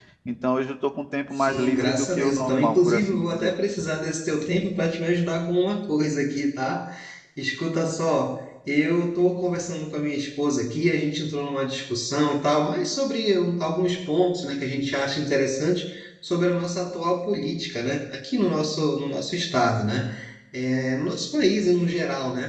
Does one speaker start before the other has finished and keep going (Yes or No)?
Yes